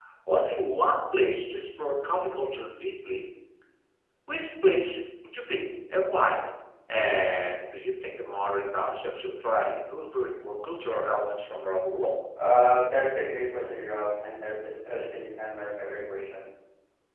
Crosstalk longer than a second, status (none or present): none